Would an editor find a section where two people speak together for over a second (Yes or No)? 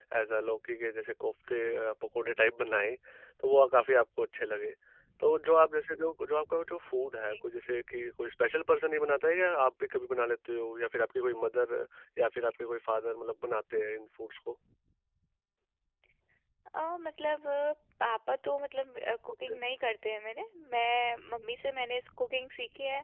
No